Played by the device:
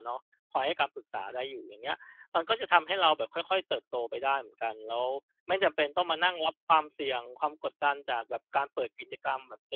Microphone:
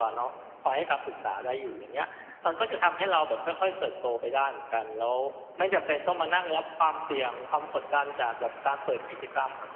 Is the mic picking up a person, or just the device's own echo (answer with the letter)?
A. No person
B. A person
A